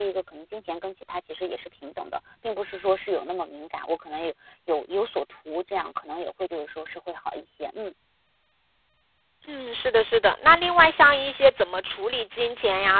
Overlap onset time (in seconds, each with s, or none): none